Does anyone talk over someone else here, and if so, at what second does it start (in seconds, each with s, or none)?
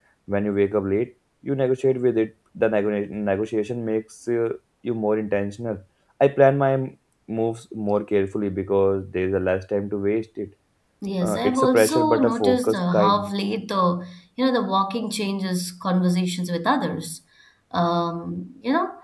11.2 s